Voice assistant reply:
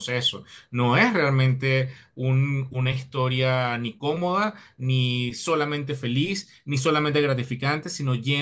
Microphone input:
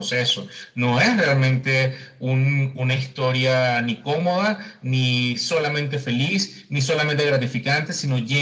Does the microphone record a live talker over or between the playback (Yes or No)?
No